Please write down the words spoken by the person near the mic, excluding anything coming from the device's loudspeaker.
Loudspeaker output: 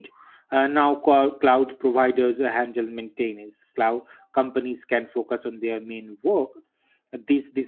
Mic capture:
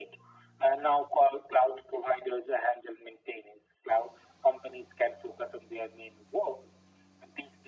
none

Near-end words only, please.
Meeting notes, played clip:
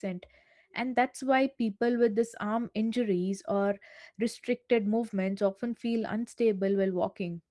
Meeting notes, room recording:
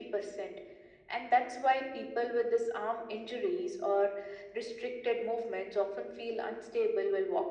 none

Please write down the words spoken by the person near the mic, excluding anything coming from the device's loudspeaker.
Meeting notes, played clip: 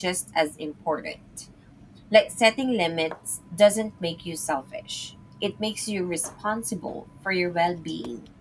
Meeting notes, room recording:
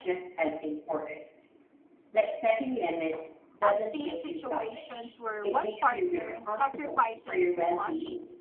I've seen situations where one partner sacrifices too much

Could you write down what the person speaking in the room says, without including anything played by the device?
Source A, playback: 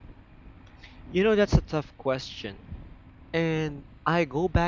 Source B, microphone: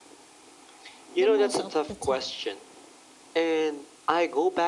the most of the time.

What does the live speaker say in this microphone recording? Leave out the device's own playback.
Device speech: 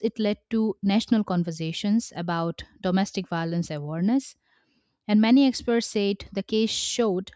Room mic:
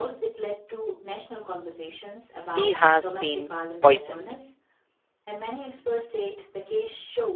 he has been poisoned.

